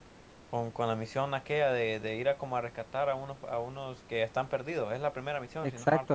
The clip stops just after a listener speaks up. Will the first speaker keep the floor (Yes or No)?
No